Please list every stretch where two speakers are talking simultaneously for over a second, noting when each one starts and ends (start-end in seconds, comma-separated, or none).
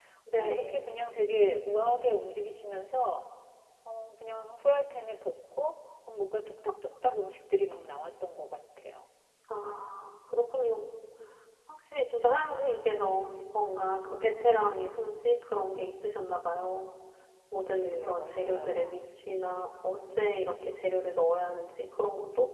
17.6-19.0